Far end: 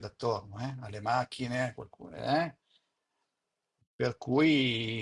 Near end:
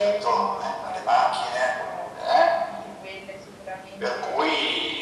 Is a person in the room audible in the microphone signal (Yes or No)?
Yes